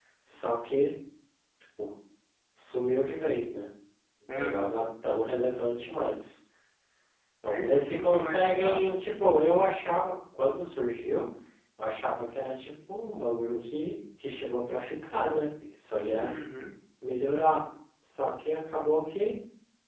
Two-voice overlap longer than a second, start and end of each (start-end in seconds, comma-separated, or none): 7.4-9.0